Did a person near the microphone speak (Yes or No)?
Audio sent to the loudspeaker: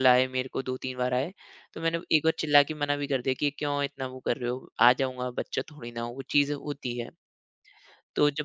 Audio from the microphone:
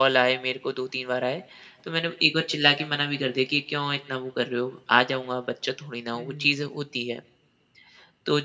Yes